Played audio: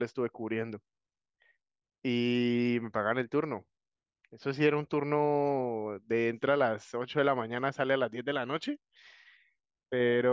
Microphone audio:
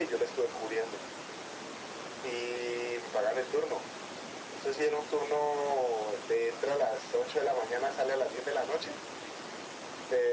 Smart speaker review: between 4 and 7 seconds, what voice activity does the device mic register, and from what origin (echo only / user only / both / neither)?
echo only